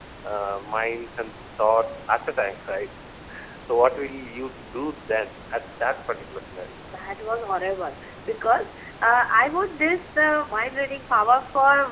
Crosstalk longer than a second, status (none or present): none